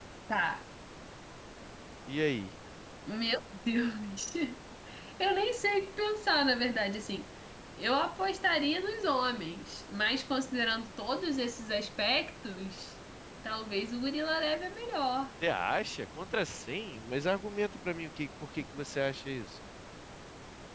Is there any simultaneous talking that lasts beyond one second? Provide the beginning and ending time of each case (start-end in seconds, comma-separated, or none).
none